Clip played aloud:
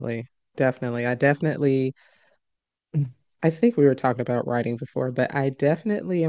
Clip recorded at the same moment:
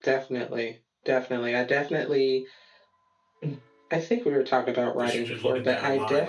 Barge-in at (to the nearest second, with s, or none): 5 s